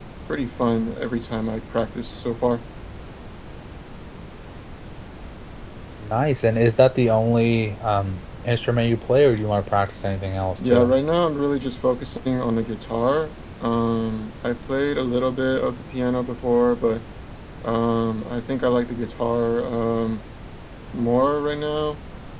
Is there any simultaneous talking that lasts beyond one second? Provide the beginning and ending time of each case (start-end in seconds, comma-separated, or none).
none